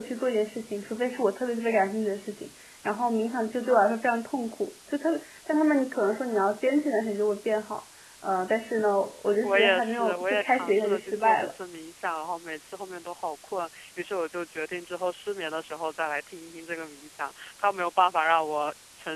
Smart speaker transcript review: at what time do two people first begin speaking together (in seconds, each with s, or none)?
9.4 s